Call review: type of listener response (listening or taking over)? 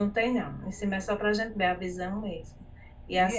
listening